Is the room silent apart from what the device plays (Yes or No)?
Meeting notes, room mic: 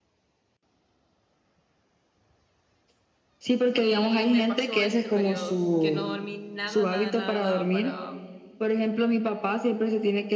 No